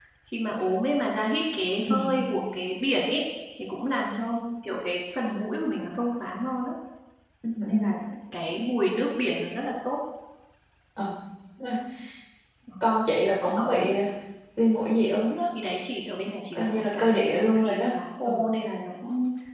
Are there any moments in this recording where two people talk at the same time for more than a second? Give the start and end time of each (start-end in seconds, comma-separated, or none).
16.5-17.8